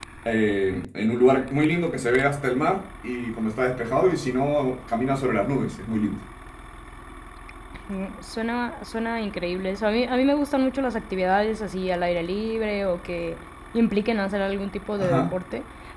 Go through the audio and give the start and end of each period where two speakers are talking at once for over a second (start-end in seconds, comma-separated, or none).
none